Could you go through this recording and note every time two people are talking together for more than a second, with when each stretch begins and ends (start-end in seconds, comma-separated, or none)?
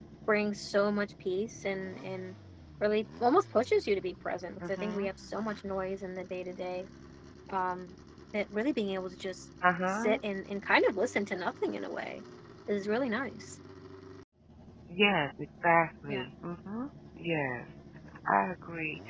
none